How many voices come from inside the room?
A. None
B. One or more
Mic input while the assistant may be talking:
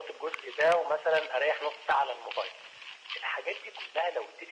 A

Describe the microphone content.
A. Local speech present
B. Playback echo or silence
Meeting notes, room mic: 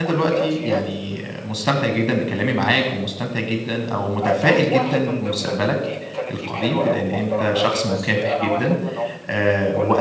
A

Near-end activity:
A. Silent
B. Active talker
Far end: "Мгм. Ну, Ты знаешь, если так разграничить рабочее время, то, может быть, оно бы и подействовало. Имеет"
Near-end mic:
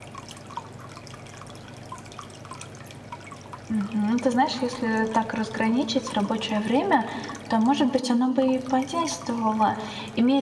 A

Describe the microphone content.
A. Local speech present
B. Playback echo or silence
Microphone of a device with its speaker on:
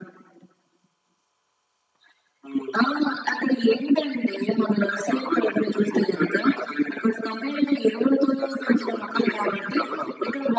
B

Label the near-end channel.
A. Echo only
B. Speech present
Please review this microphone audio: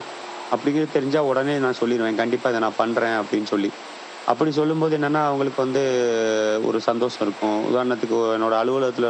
A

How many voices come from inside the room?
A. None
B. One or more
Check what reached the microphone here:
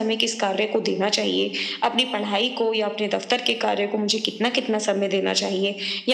A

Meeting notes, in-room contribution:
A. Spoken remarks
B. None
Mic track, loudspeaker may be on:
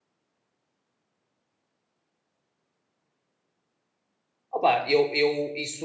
A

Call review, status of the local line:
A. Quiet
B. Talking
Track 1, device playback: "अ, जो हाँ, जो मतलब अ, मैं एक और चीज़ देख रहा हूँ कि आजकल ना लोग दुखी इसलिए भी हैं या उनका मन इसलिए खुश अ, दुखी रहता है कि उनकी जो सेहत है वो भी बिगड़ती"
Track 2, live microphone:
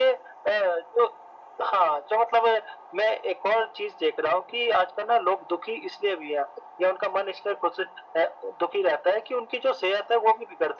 A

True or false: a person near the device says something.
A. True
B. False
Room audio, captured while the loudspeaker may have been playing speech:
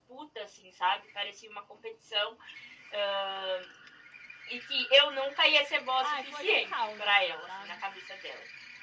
A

